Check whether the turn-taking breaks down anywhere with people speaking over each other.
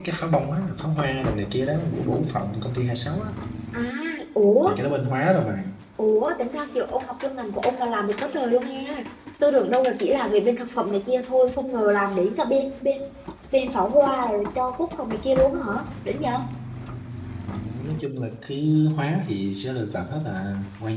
No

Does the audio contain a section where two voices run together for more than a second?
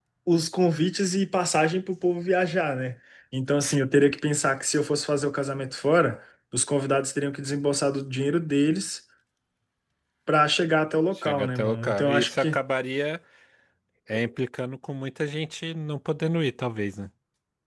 Yes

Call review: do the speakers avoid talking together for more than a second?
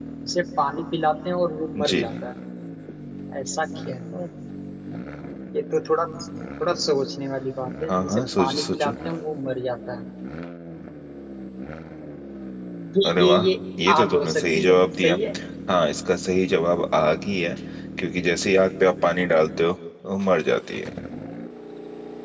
No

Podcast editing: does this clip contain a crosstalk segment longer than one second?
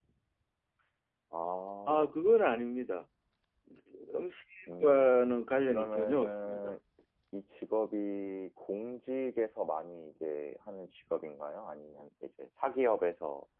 Yes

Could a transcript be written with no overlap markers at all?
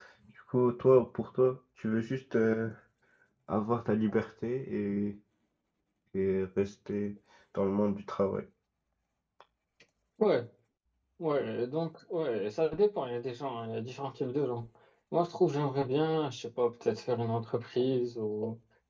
Yes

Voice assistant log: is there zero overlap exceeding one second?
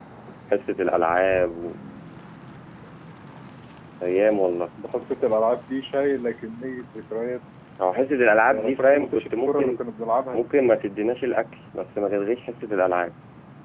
No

